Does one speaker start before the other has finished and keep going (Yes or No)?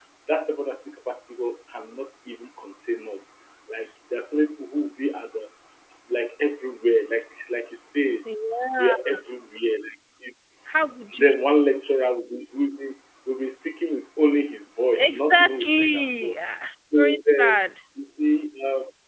Yes